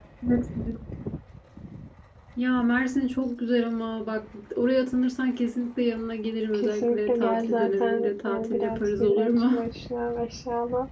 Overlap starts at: 7 s

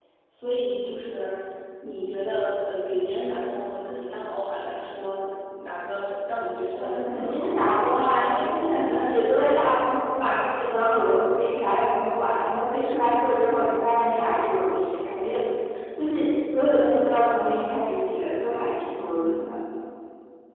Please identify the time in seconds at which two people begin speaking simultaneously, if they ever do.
7 s

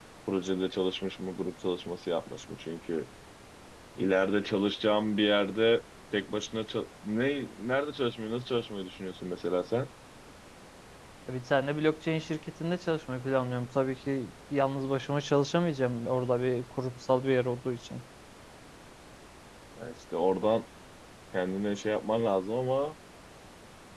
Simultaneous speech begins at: none

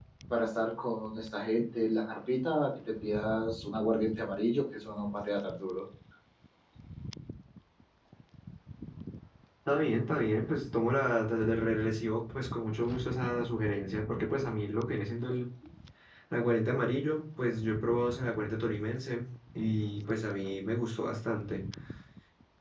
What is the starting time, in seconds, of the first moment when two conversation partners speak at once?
none

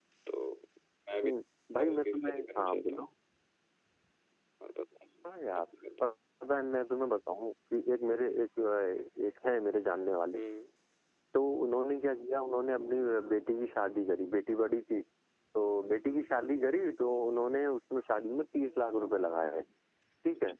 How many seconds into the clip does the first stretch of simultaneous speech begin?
2 s

